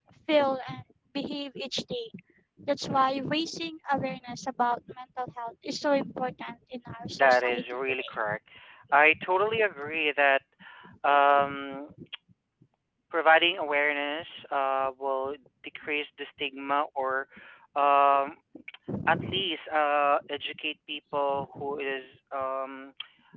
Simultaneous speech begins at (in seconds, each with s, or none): 7.2 s